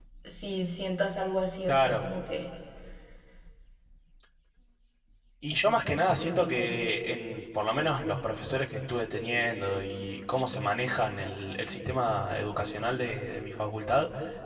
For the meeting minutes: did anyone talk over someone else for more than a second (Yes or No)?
No